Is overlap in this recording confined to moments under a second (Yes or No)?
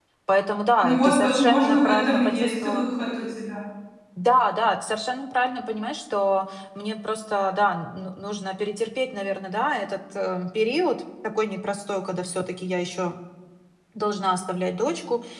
No